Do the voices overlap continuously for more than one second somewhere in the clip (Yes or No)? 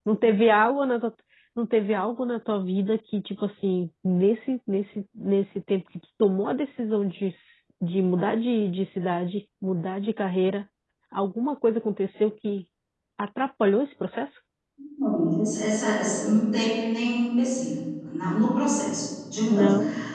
No